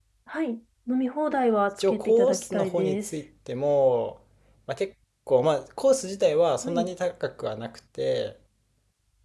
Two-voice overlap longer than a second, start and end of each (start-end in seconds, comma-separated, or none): 1.8-3.1